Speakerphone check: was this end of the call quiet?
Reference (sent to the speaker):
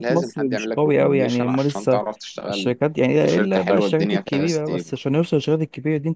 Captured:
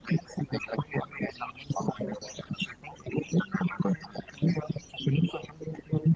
Yes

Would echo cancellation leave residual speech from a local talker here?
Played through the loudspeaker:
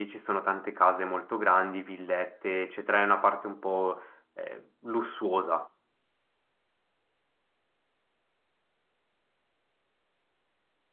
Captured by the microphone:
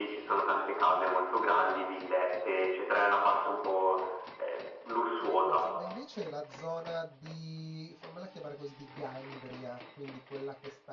Yes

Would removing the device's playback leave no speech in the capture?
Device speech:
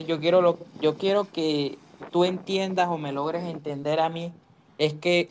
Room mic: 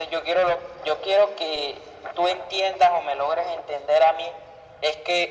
Yes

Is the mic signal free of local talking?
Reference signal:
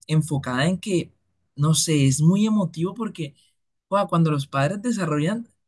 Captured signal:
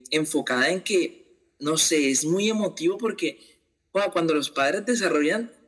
Yes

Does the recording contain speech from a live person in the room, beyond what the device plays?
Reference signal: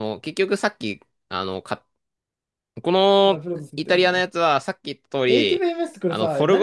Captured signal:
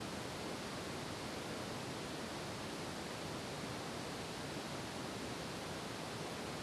No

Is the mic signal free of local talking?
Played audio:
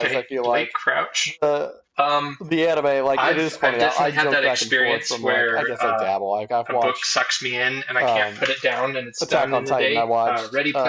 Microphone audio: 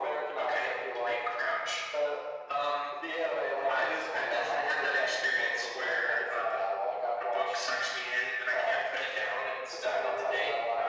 Yes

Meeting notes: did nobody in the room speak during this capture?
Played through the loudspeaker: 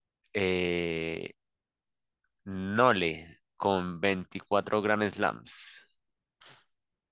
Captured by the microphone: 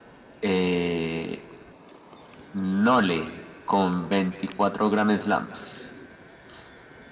Yes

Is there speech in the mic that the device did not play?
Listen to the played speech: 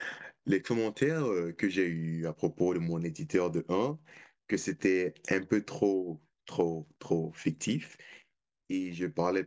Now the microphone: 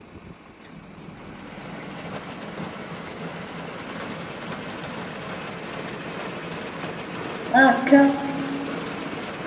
Yes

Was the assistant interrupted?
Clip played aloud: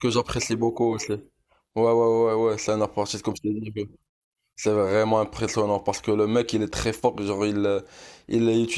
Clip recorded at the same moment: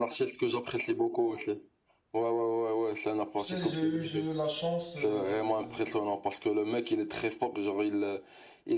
Yes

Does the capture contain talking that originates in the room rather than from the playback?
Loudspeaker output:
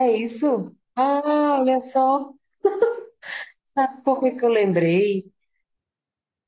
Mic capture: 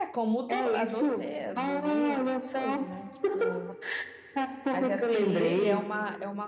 Yes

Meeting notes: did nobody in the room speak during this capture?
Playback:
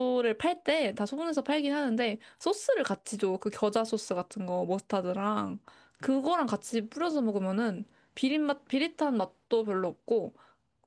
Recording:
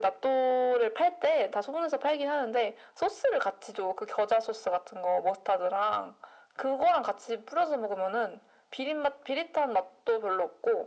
Yes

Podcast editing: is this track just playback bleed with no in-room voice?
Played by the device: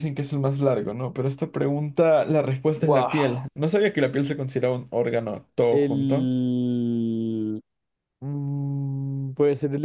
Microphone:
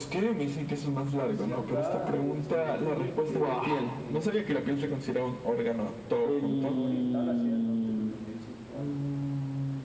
No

